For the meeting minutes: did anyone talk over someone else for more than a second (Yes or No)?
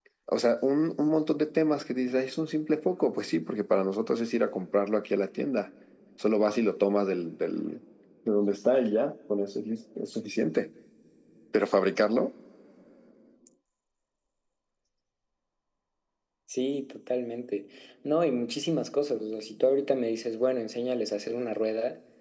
No